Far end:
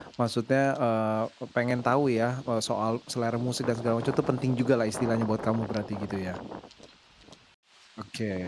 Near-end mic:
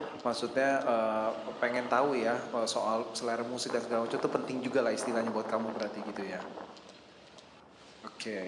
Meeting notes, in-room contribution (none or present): none